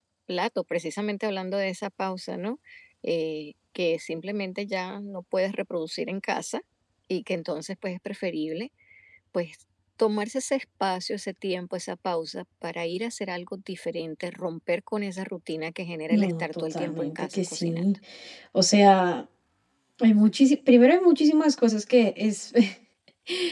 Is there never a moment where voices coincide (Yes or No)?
No